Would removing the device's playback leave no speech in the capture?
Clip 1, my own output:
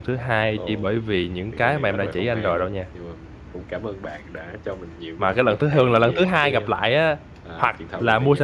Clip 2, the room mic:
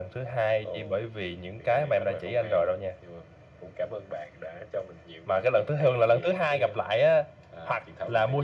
Yes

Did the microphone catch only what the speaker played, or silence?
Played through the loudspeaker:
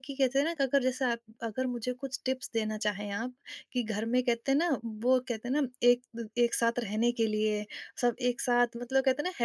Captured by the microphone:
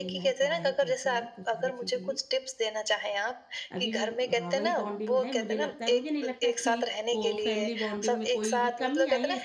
No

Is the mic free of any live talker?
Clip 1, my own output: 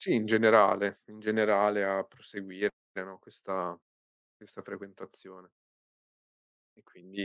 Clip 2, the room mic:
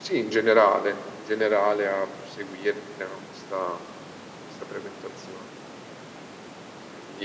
Yes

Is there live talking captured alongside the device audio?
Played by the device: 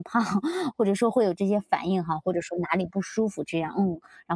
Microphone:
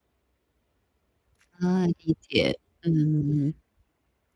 Yes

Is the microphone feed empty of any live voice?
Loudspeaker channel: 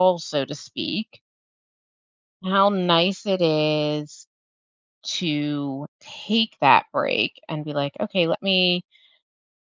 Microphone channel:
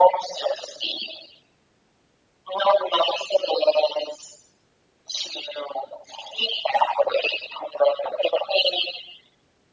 Yes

